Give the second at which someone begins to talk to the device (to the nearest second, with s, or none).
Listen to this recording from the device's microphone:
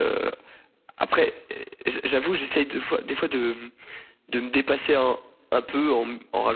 none